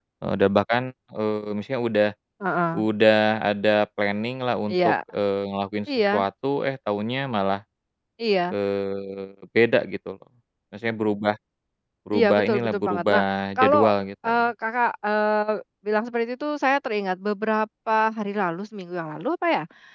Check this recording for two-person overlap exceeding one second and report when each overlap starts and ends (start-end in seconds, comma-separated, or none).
12.2-13.8